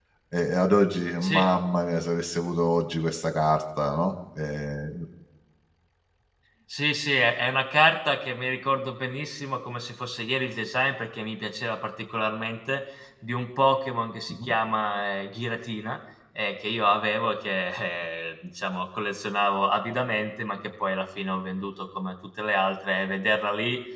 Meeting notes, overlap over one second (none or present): none